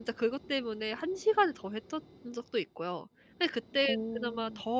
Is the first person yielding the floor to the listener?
No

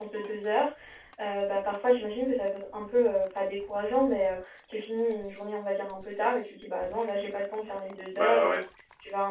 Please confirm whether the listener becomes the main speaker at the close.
No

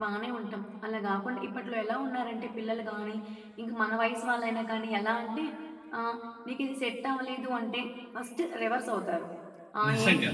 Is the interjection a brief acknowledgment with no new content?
Yes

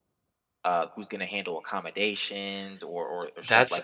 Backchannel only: No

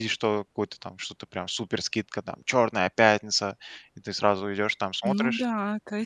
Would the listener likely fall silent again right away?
No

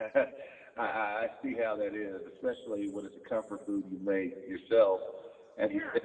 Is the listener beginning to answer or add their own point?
No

